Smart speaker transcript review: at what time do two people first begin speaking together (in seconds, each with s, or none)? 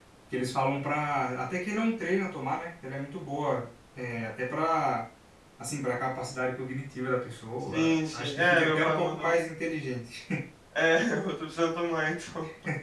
7.7 s